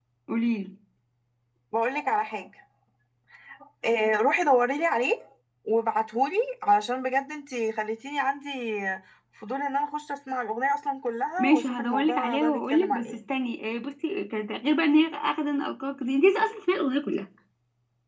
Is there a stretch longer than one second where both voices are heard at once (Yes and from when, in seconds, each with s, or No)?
Yes, from 11.4 s